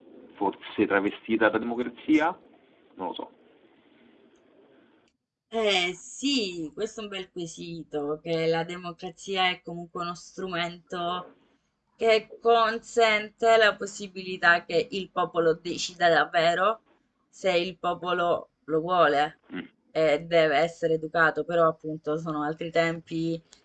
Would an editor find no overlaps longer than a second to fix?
Yes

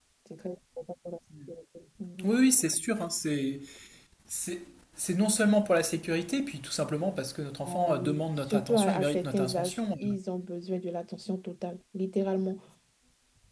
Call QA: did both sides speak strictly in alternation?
No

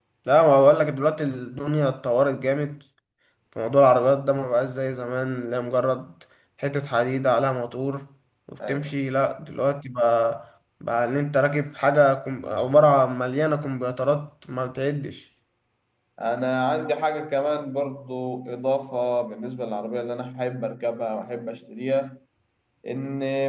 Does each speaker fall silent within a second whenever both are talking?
Yes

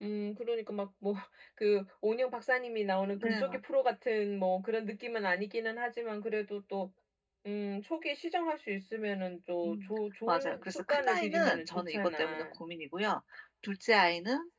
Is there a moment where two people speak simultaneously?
Yes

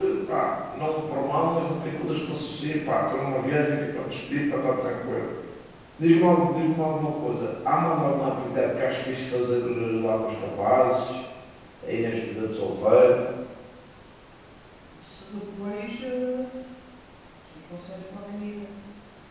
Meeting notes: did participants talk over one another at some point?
No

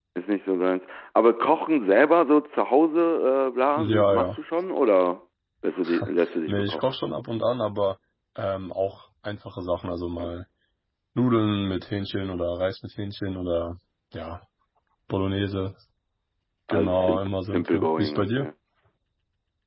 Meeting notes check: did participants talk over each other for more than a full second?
Yes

